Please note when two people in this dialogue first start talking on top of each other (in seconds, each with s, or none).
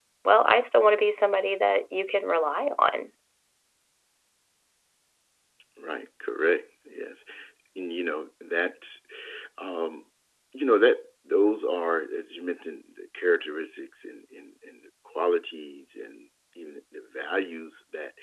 none